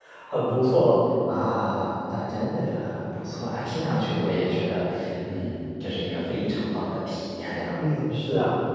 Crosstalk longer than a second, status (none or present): none